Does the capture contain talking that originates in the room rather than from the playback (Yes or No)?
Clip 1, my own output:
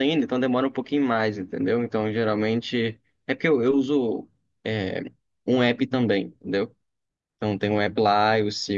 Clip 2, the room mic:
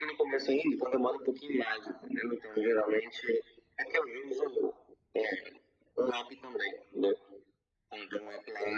No